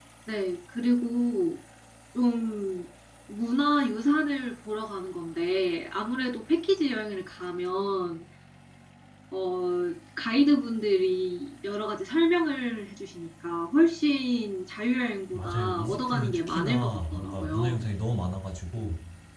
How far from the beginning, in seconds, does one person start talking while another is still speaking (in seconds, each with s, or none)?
15.3 s